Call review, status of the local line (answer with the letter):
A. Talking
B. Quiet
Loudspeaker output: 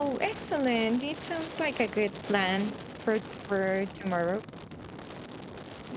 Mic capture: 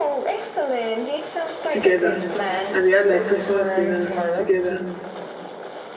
A